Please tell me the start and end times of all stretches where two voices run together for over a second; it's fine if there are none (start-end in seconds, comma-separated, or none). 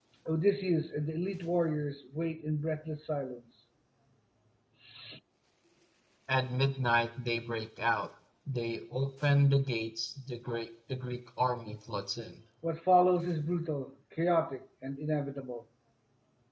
none